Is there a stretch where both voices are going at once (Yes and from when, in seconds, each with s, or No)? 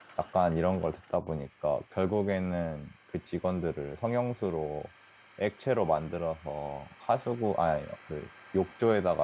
No